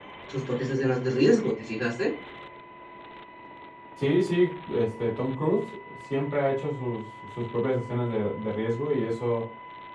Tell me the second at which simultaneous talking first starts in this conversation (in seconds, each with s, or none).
none